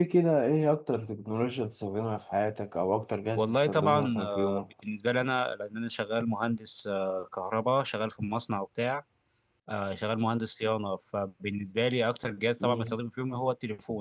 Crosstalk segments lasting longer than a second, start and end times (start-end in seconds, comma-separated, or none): 3.4-4.6